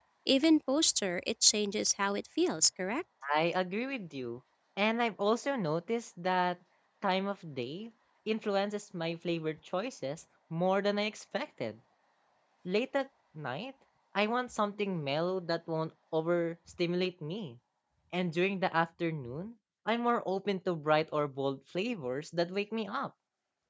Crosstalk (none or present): none